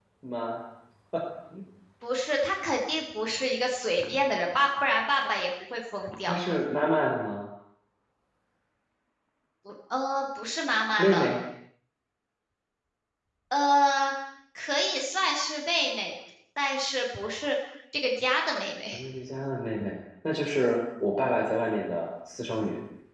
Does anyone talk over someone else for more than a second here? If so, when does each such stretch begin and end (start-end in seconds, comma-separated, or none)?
none